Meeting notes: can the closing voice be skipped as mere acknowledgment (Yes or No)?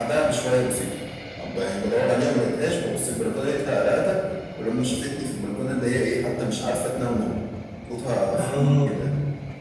Yes